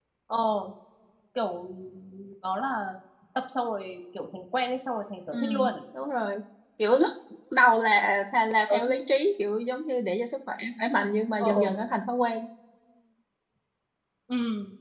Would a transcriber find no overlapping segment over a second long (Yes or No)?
Yes